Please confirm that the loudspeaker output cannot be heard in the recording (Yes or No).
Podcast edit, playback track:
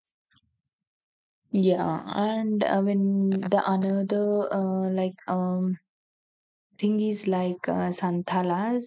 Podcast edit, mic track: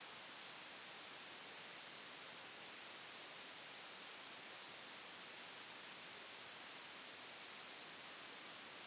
Yes